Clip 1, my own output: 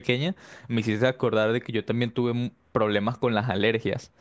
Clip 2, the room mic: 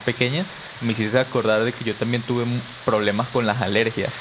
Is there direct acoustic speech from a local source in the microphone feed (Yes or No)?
No